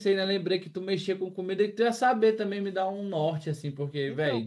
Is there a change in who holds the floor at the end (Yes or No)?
Yes